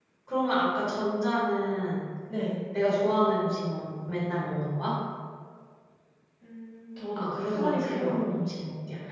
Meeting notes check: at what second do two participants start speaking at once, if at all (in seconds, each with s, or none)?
7.2 s